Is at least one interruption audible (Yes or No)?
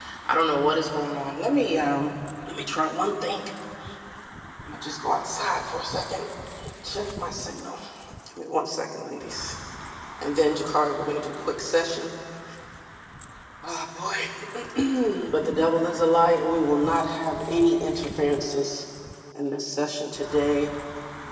No